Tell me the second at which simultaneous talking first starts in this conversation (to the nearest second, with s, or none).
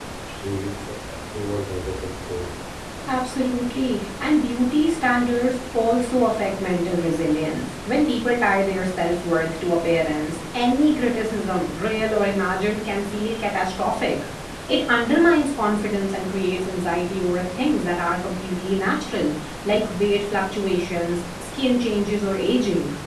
none